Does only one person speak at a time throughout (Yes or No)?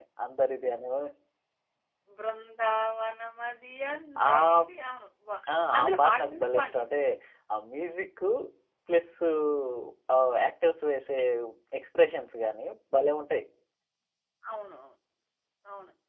No